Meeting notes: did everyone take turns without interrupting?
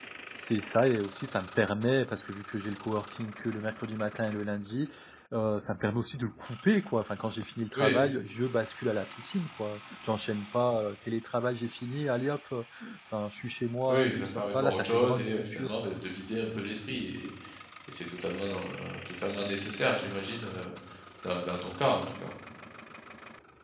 No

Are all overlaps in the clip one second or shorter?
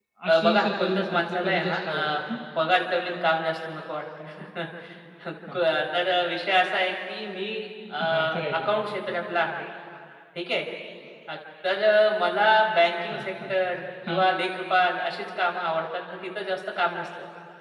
No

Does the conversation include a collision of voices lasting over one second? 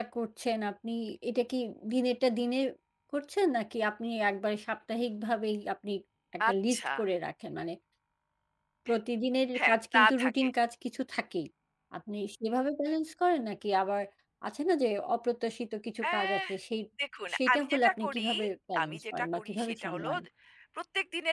Yes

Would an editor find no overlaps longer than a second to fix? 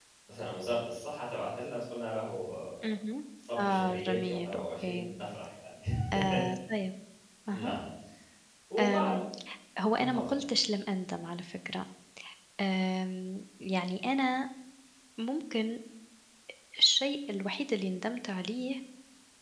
No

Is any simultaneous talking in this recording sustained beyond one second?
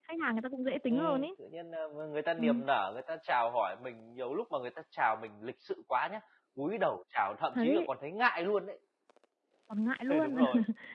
No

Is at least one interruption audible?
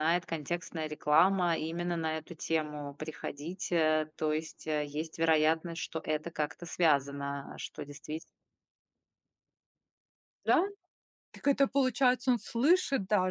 No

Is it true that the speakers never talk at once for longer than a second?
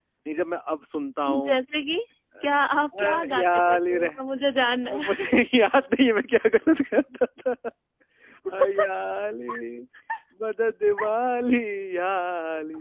No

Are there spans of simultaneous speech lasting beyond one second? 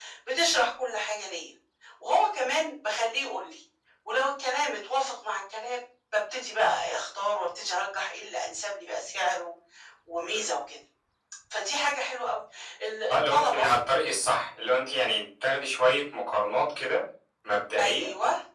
No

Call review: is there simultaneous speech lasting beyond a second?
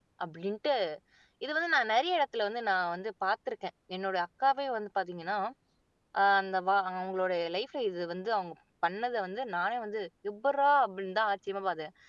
No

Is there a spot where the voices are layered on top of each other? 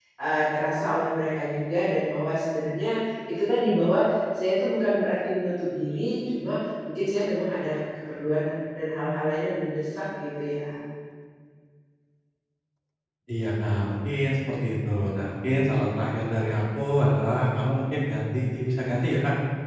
No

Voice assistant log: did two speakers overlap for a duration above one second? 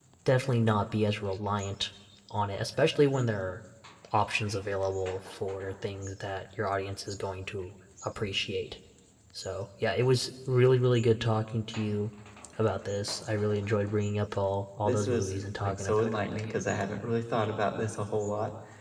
Yes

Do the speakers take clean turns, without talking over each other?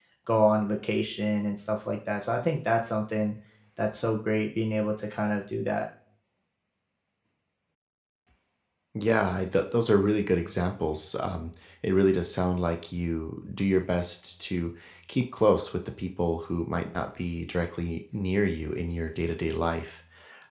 Yes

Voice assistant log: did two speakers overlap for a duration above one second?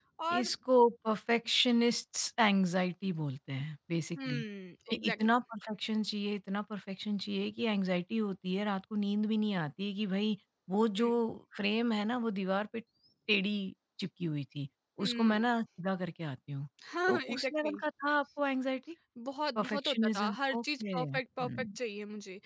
Yes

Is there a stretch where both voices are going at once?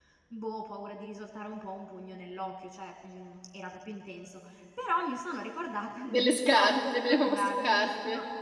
Yes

